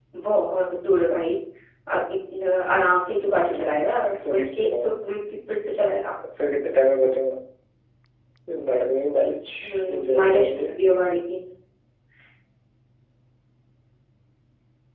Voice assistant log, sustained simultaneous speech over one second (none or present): present